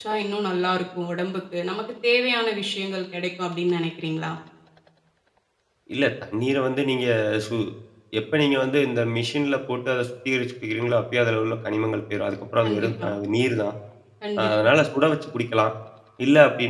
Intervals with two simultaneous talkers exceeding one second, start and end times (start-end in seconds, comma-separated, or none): none